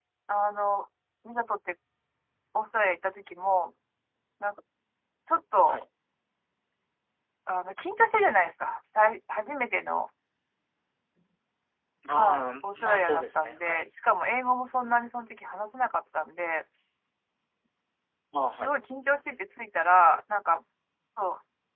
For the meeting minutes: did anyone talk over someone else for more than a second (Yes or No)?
Yes